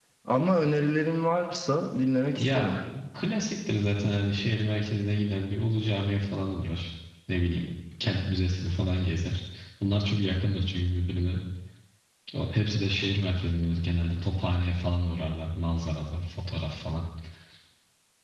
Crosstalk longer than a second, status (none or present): none